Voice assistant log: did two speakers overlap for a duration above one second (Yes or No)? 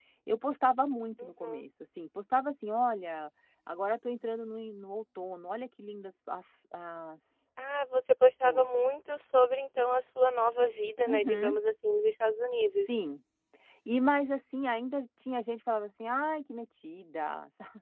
No